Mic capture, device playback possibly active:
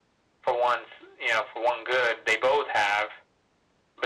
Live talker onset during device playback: none

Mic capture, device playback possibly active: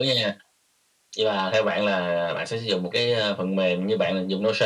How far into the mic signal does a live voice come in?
none

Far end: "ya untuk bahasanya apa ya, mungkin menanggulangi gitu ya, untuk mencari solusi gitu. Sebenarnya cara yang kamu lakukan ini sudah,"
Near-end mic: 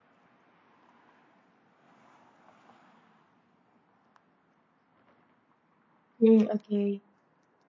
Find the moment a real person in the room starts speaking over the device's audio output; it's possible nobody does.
6 s

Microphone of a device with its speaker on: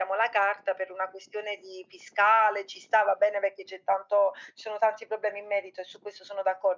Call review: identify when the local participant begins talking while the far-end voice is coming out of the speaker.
none

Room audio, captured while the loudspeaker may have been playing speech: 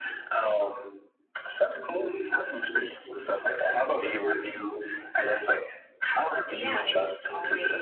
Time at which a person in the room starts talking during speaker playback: 6 s

